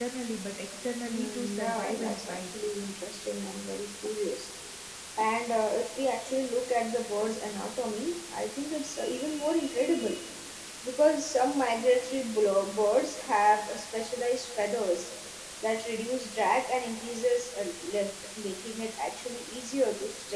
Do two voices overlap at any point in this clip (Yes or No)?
Yes